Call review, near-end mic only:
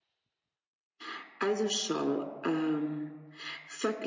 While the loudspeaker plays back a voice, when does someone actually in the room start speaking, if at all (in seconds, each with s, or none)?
none